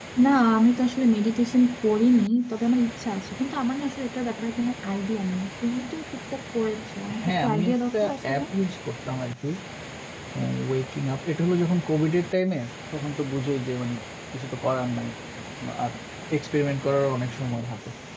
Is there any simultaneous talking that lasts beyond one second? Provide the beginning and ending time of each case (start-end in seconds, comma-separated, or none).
7.2-8.4